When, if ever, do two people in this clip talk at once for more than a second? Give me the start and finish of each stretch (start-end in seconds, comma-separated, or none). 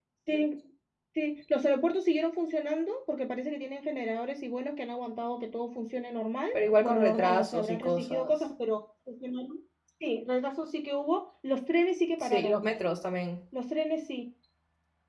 6.5-8.3